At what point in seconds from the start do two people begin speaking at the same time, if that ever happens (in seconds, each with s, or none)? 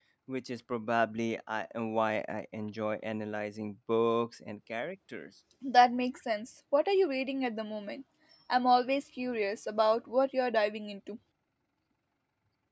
none